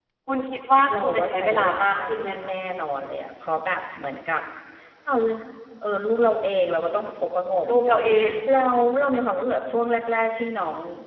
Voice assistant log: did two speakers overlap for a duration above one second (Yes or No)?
Yes